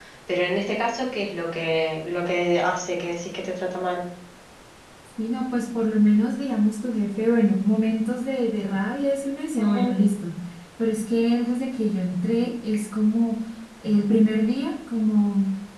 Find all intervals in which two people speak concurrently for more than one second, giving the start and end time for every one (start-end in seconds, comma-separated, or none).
none